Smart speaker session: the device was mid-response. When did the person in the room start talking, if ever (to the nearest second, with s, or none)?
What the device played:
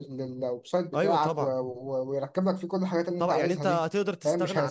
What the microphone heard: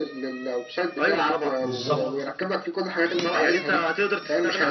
2 s